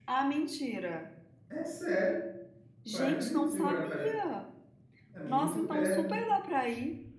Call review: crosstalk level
present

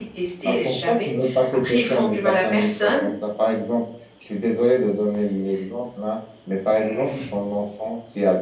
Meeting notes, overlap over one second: present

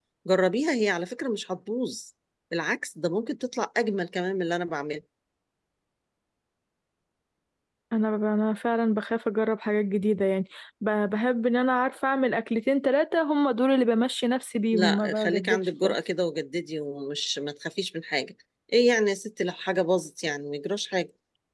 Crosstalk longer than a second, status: present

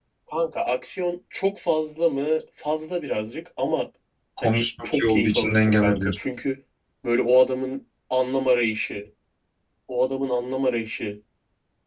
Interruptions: present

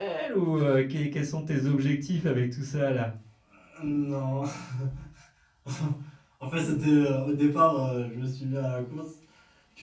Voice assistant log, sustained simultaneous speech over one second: none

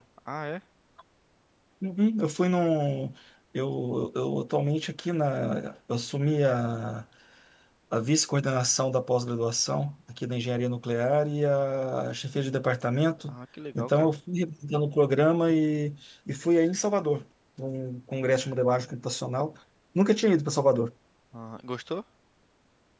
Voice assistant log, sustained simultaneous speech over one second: none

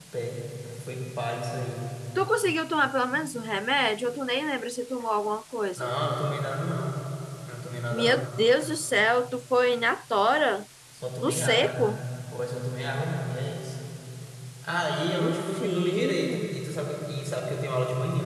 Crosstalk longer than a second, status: present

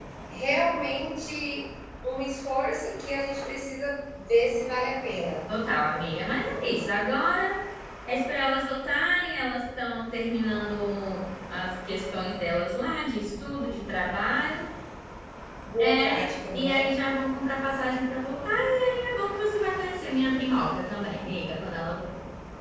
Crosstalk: present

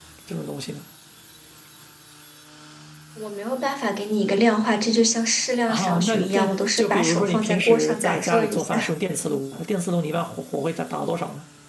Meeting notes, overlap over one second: present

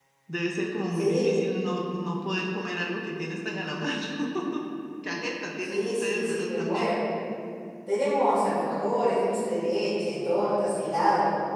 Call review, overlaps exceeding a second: present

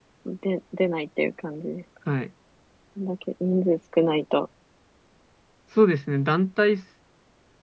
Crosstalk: none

